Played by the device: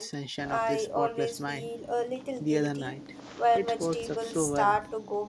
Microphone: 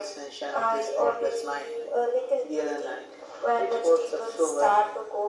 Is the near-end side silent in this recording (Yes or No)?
Yes